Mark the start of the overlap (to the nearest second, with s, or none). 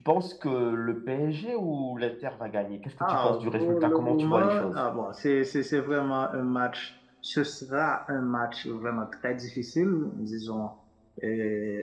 3 s